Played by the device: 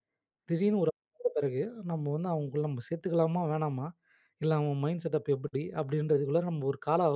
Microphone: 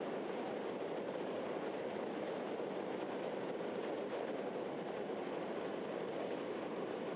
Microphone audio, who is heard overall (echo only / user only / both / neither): neither